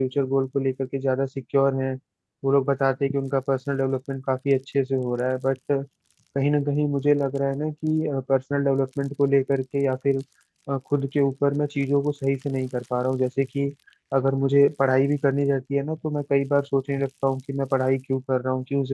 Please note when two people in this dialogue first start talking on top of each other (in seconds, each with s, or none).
none